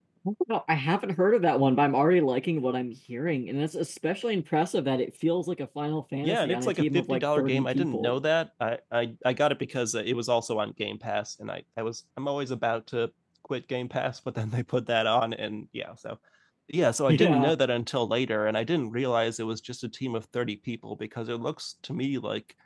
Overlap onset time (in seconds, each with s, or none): 6.2 s